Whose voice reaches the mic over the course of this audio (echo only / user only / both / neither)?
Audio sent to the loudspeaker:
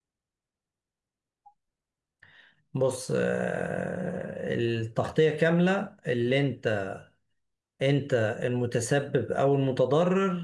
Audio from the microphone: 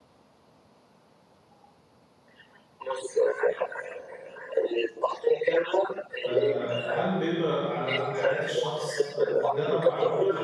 both